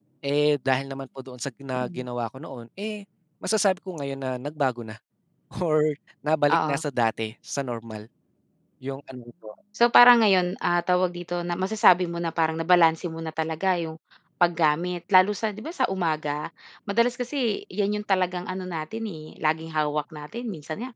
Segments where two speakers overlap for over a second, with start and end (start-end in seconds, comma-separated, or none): none